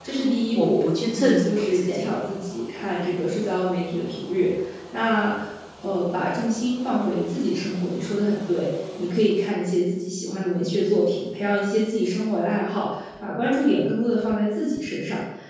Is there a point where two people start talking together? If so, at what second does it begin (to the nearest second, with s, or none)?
1 s